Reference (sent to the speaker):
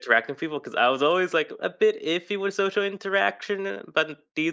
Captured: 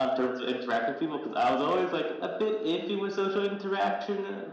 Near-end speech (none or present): present